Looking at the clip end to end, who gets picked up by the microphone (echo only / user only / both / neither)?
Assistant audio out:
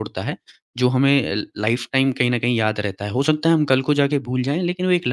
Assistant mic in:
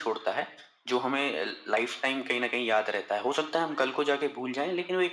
echo only